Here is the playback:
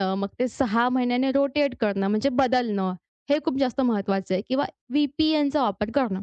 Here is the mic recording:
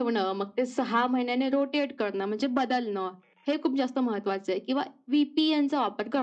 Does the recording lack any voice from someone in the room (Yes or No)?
Yes